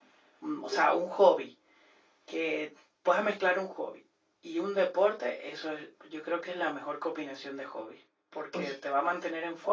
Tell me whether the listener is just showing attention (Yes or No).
Yes